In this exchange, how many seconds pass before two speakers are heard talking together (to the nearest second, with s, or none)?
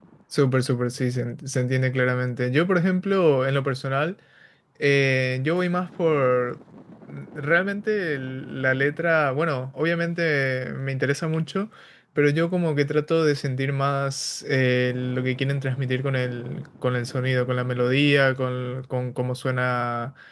none